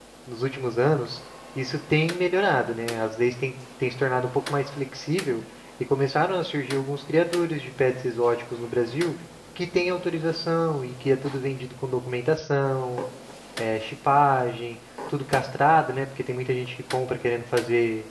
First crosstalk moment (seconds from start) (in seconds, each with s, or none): none